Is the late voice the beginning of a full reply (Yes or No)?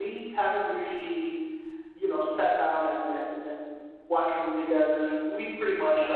No